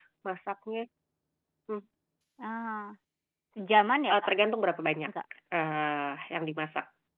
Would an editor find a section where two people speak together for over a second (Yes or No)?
No